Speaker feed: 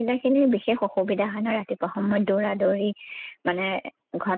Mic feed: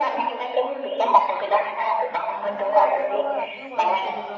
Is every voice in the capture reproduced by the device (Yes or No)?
No